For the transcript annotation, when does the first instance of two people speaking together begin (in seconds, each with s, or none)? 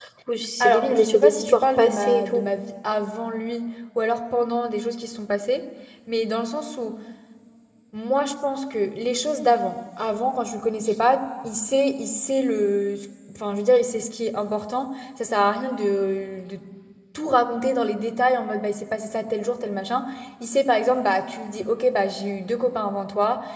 0.6 s